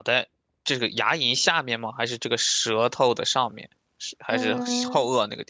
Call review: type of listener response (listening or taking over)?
taking over